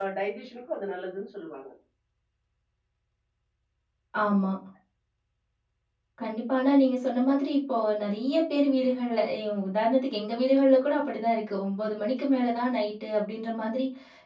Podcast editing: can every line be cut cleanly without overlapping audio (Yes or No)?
Yes